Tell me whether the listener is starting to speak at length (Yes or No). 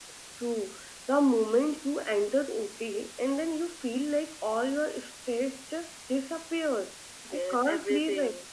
Yes